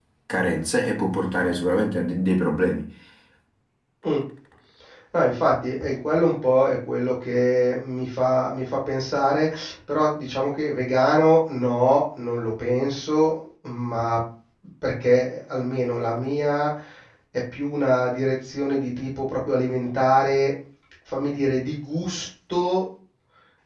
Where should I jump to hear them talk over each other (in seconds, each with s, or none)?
none